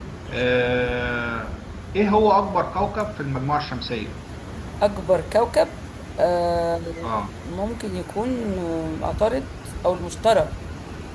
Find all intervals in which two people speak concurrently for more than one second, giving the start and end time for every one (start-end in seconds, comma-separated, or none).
none